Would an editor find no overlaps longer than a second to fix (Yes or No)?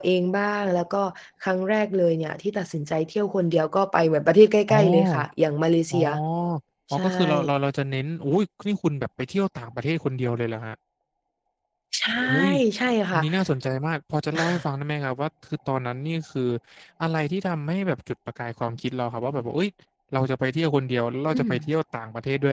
Yes